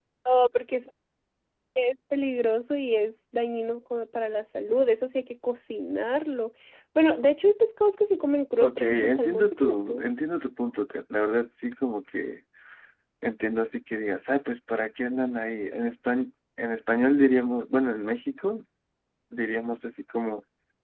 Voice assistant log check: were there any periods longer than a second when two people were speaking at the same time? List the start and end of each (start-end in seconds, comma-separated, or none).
8.6-10.0